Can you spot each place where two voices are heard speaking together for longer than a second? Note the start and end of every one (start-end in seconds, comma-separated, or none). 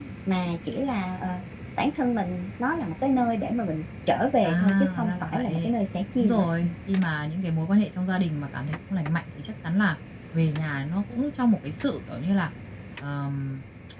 4.4-5.7